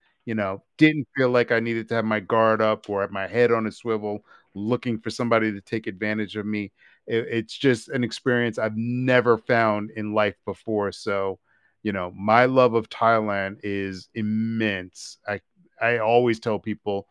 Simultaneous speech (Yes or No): No